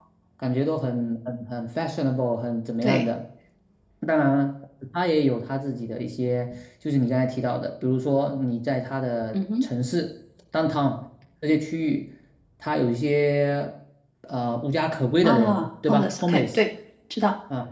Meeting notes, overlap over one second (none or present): present